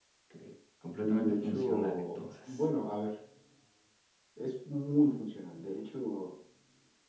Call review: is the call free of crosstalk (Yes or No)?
No